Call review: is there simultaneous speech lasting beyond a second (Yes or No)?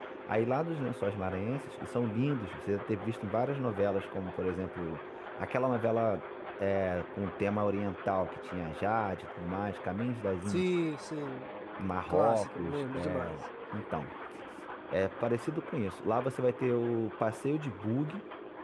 Yes